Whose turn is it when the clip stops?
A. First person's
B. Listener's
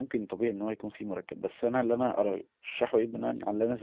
A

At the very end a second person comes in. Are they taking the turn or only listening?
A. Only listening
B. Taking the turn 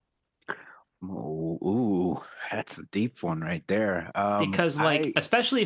B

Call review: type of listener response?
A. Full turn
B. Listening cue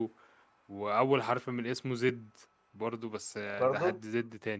B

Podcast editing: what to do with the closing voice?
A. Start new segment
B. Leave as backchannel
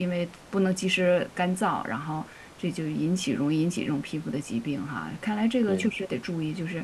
B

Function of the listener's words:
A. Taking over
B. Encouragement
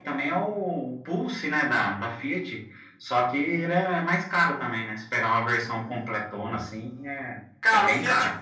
A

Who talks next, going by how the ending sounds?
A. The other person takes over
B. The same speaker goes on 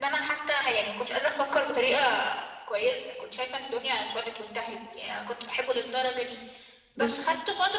B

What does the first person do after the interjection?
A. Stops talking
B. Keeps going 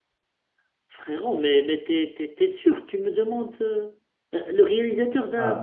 A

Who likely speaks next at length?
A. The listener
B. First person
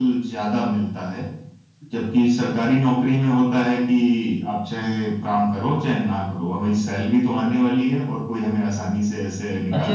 A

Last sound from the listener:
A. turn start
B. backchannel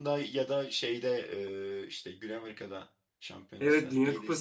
A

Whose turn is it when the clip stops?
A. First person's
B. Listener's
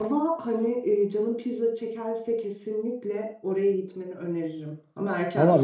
B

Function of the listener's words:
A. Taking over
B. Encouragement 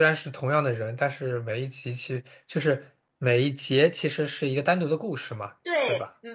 A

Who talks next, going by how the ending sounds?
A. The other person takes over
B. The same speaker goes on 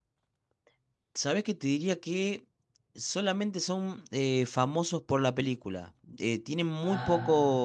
B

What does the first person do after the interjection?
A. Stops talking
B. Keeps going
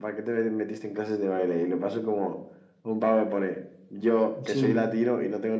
B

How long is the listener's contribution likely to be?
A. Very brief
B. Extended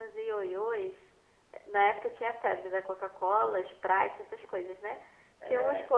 A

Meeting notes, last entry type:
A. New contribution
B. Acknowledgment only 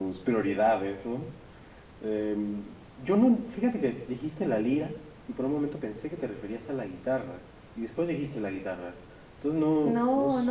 A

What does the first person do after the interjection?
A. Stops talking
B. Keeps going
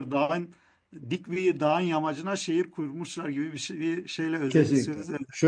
A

